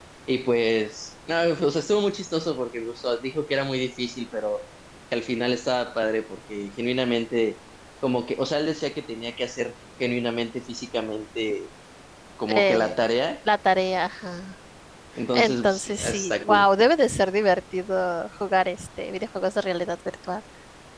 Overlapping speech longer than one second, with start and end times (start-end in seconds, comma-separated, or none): 15.3-16.7